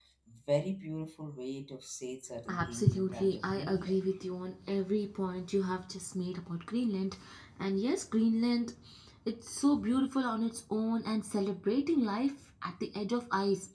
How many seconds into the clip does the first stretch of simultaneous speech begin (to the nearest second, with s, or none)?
2 s